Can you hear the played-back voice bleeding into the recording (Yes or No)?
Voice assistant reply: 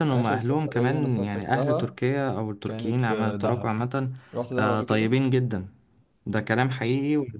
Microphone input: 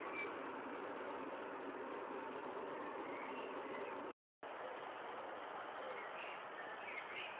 No